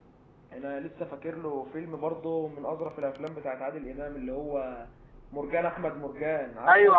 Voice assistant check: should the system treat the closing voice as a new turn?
Yes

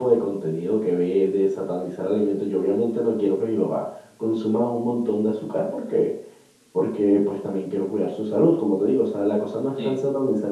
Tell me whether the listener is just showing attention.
Yes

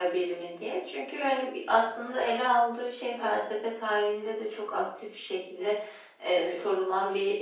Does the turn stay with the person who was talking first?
Yes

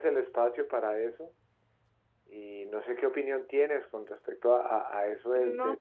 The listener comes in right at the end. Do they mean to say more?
No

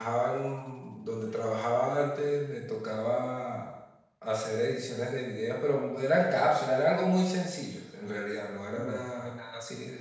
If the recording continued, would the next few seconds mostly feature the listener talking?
No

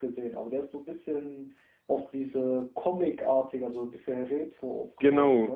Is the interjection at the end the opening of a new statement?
Yes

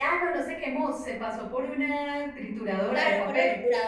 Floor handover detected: Yes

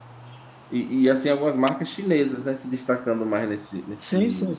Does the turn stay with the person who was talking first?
No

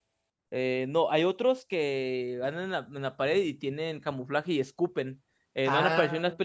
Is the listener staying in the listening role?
Yes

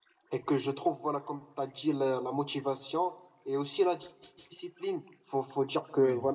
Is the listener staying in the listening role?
Yes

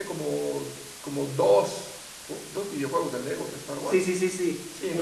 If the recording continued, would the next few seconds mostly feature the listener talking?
Yes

